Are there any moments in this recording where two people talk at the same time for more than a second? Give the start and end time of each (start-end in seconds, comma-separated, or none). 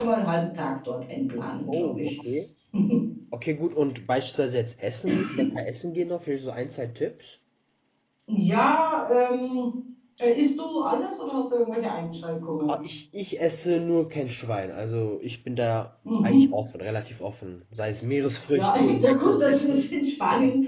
18.5-19.8